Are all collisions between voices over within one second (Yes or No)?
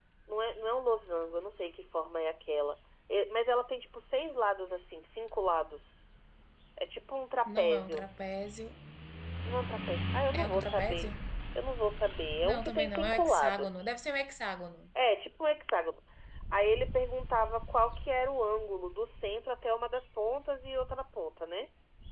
No